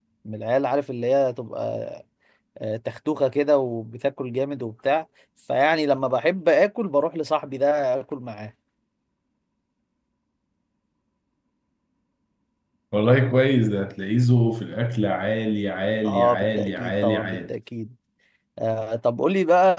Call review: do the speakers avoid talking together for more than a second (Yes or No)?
No